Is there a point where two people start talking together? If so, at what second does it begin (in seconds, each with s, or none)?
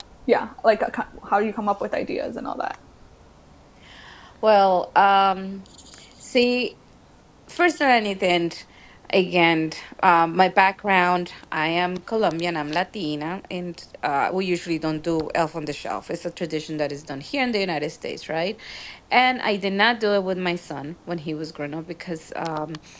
none